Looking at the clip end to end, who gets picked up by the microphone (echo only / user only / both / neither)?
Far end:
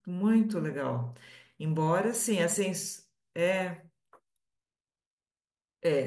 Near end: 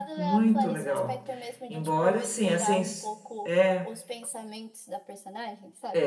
both